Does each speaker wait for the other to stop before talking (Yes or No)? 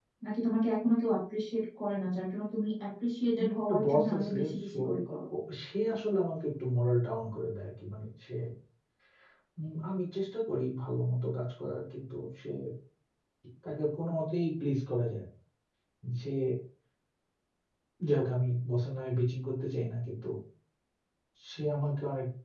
No